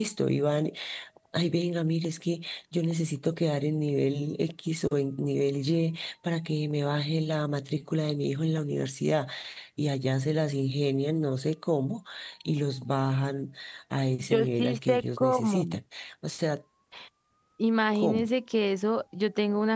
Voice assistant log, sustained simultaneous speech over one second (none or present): present